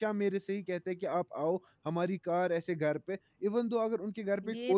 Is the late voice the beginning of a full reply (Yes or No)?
Yes